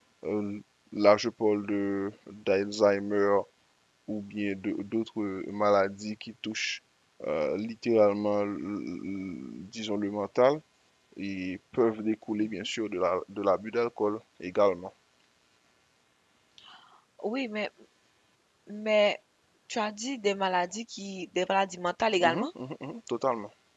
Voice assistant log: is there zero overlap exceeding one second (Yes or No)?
Yes